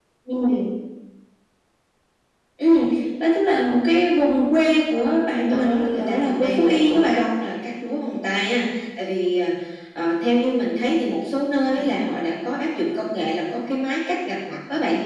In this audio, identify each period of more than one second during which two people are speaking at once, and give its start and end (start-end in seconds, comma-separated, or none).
5.5-7.2